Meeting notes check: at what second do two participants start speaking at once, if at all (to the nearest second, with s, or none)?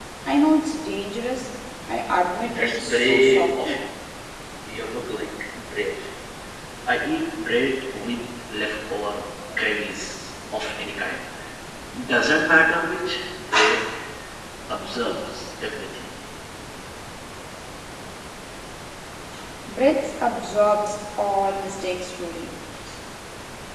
2 s